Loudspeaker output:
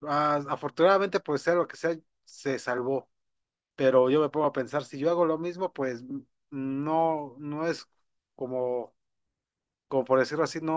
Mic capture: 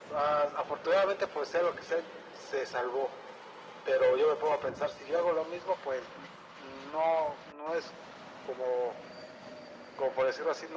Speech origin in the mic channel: echo only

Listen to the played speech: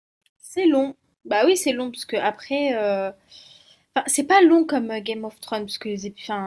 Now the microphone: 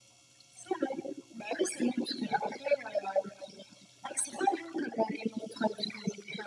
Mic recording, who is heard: echo only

